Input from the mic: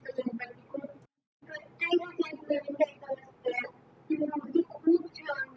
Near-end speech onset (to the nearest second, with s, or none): none